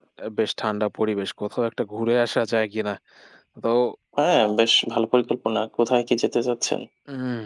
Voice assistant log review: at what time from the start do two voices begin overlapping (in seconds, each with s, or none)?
none